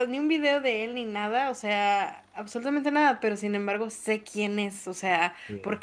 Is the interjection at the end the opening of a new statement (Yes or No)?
No